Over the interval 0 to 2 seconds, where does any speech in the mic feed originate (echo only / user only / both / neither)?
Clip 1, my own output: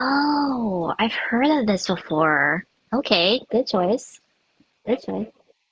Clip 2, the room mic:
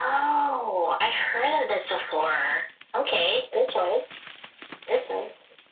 echo only